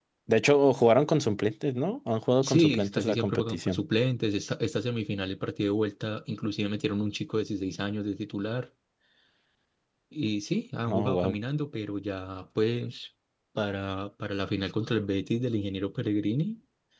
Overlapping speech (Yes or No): Yes